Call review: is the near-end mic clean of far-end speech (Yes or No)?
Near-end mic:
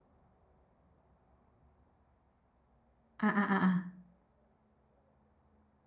Yes